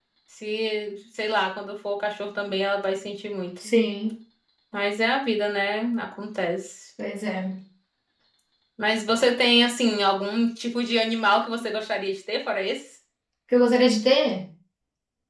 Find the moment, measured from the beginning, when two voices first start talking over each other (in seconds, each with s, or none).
none